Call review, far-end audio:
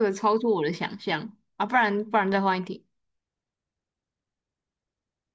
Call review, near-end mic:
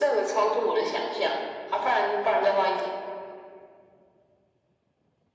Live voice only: none

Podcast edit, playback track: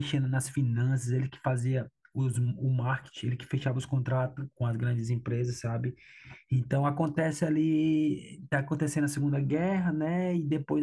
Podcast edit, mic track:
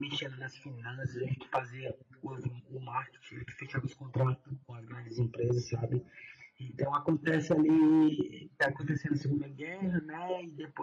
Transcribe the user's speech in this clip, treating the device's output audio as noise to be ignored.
none

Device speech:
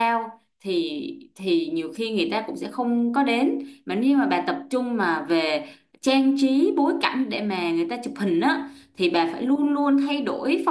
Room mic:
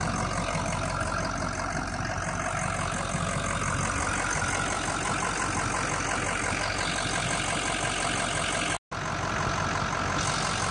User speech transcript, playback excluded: none

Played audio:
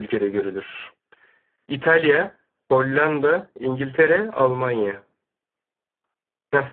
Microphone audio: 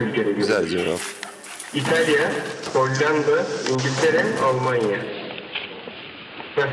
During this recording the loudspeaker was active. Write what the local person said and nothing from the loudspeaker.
Güzel cevap.

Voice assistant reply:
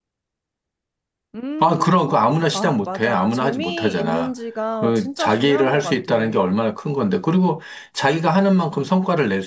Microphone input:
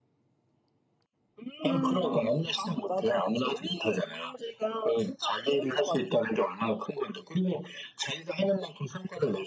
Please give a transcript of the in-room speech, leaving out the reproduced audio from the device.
음,

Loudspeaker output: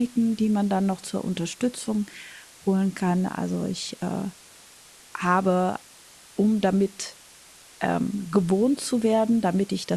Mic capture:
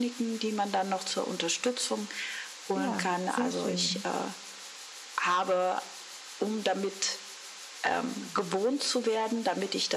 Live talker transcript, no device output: Ja, sehr schön.

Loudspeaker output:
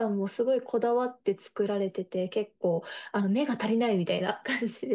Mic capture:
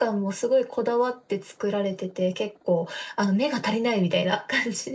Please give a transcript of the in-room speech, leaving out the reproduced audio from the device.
none

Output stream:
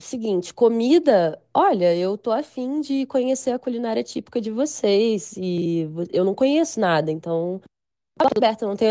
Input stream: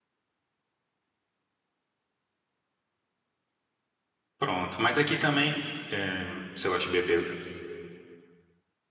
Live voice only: pronto. Mas aqui também, é, você gosta de beber?

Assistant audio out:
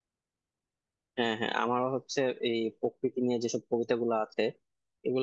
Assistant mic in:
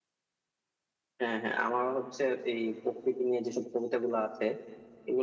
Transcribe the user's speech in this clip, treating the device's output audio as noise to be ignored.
none

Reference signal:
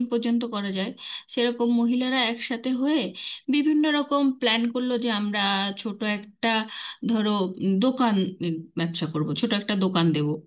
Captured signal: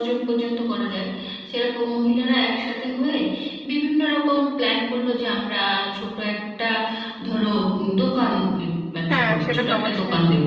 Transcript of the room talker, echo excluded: হ্যাঁ সেটা তো অবশ্যই

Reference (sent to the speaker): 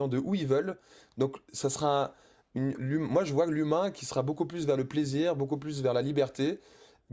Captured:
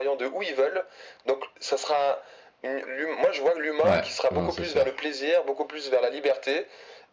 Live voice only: Ouais, non, c'est sûr.

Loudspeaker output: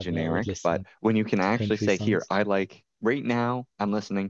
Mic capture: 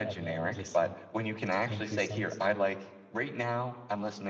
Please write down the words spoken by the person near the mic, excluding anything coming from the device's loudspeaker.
none

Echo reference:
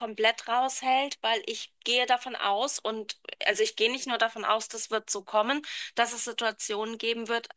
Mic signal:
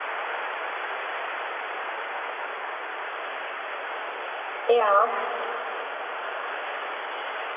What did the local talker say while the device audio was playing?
Ja.

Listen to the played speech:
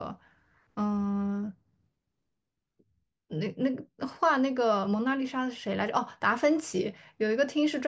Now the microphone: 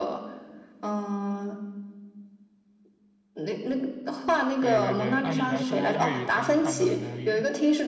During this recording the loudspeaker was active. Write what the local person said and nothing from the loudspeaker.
对对对，按理来说粤语才是他们的母语。

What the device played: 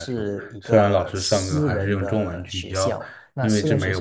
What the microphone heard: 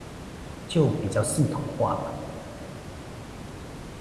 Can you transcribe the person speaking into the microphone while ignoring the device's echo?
就比较系统化吧。

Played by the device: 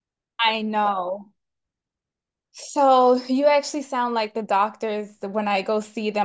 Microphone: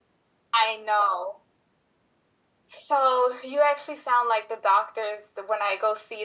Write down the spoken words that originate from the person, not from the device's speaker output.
none

